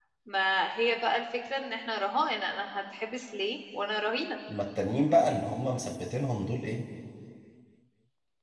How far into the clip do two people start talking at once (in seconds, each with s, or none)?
none